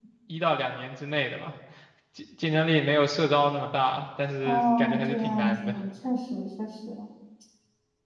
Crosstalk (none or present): present